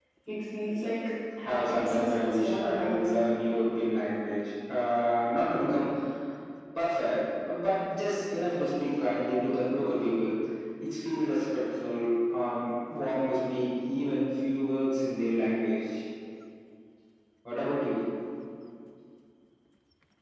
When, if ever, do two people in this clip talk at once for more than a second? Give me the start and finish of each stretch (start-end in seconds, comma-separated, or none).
1.4-3.1